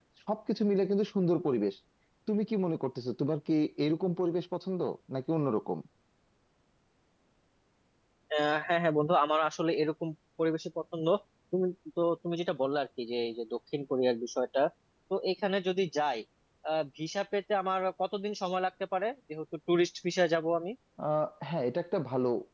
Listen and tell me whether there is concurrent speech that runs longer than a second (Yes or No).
No